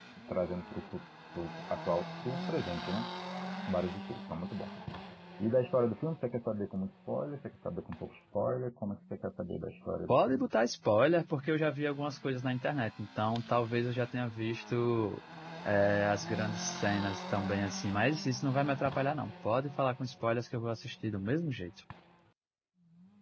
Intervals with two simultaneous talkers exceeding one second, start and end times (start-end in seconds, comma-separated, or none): none